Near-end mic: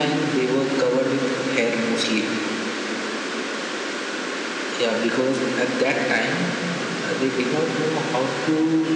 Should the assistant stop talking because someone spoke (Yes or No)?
No